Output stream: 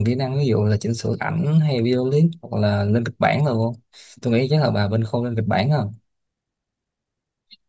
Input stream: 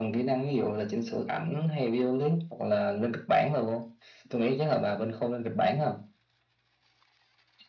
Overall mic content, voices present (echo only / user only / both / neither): echo only